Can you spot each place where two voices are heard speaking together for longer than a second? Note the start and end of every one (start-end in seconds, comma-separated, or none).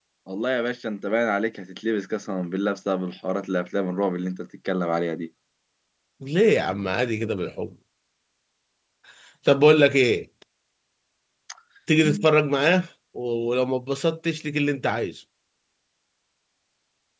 none